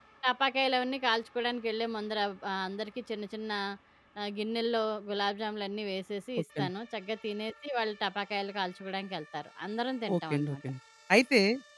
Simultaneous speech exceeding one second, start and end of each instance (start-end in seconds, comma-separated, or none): none